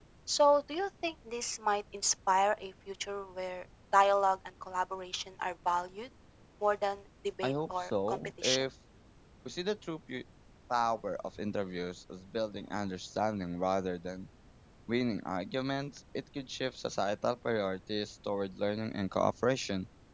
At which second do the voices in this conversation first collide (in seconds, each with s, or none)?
7.4 s